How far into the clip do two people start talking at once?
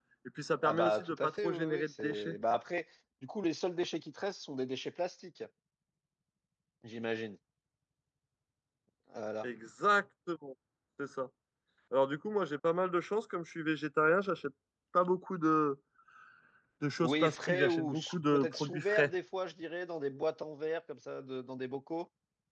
0.6 s

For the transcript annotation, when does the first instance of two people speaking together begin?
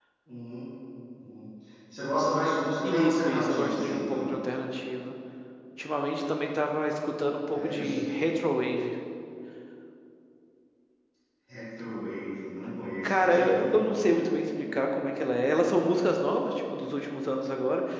2.8 s

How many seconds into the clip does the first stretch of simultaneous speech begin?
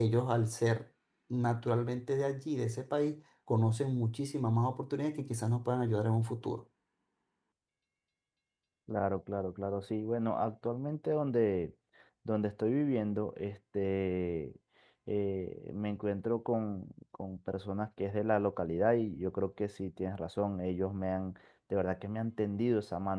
none

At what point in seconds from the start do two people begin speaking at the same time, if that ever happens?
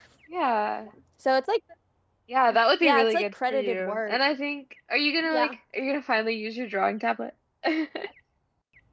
2.8 s

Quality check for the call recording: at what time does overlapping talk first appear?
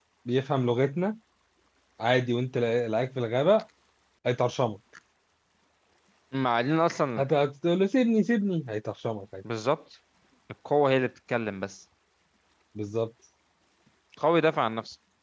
none

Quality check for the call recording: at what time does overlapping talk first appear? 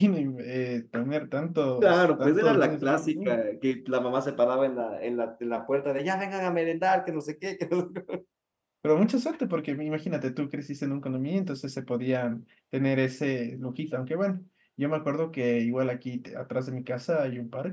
1.8 s

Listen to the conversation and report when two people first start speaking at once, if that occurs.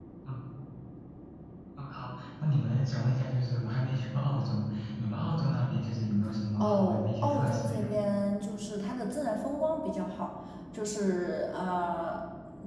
6.6 s

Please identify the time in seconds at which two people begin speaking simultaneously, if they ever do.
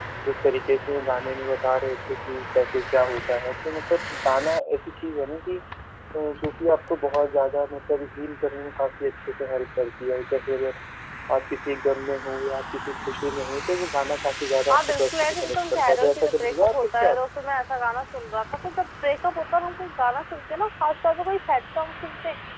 14.7 s

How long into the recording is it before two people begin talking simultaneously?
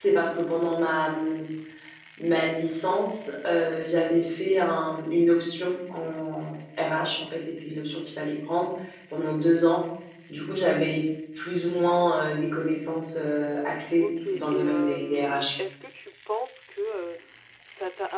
14.0 s

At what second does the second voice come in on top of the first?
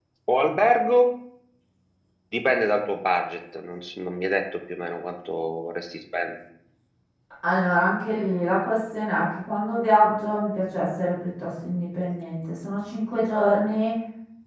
none

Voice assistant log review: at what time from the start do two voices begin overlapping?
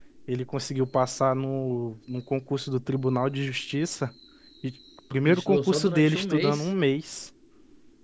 5.2 s

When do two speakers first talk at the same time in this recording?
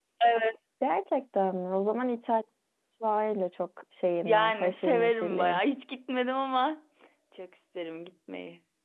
4.3 s

